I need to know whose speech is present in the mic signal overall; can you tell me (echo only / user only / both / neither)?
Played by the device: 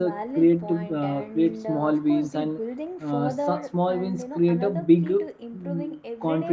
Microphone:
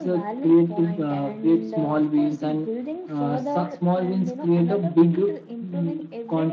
echo only